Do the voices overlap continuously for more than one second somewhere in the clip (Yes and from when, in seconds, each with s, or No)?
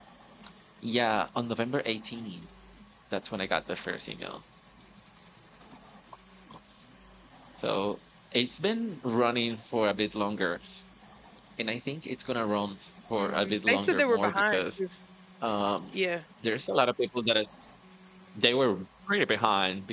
Yes, from 13.2 s